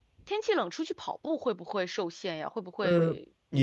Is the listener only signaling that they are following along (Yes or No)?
No